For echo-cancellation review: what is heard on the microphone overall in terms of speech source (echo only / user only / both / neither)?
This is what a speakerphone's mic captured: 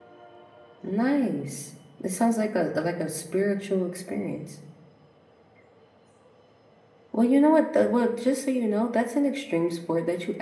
user only